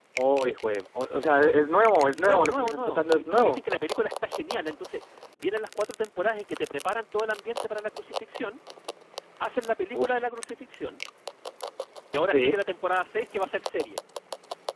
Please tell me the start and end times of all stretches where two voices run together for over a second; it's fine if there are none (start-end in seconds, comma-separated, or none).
2.1-3.6